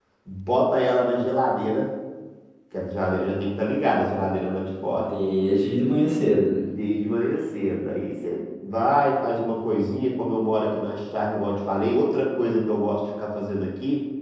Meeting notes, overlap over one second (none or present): none